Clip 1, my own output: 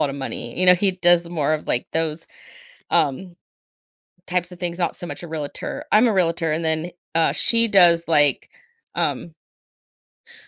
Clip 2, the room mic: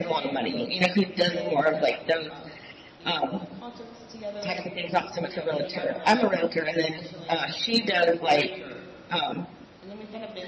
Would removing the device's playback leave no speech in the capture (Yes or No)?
No